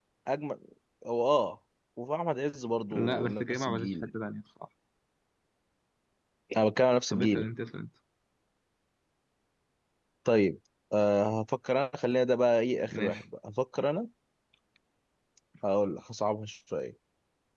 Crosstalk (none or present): present